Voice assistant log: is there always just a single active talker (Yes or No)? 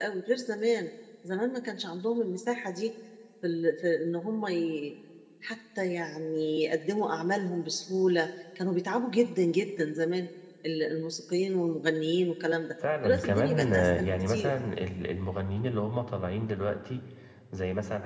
No